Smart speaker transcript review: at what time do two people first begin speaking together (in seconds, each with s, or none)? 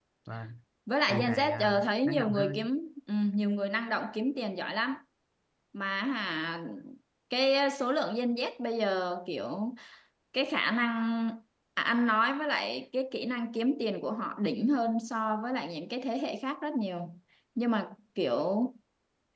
1.1 s